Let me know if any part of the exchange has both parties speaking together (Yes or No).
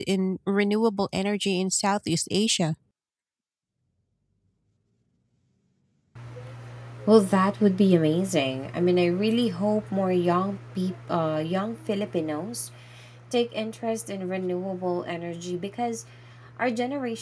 No